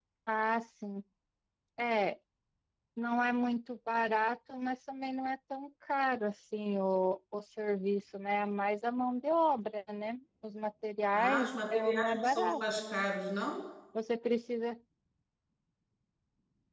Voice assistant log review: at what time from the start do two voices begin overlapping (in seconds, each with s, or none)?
11.1 s